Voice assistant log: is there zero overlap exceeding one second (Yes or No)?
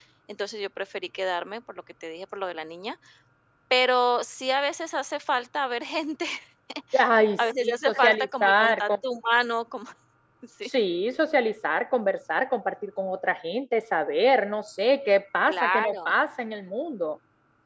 No